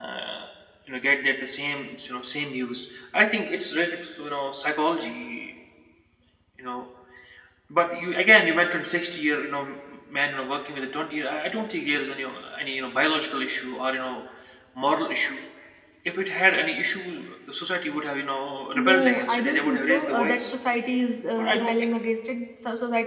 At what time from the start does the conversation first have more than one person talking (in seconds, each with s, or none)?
18.8 s